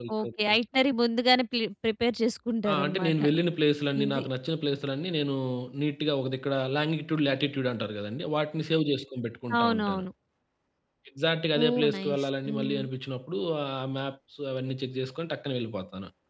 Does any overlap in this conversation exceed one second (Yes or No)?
Yes